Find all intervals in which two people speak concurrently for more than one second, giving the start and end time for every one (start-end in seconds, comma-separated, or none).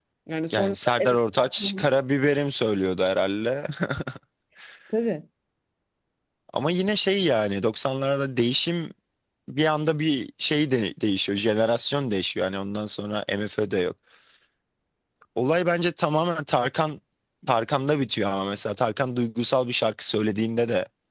0.5-1.8